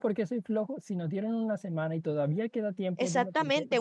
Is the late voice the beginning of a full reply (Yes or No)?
Yes